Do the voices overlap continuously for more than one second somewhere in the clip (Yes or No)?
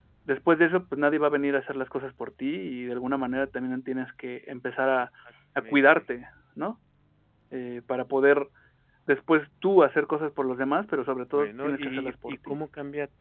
Yes